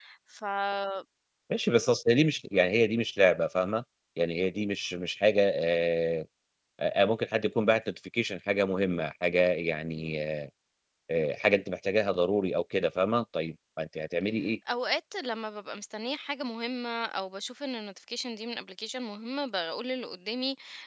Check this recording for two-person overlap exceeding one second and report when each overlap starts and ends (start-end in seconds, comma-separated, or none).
none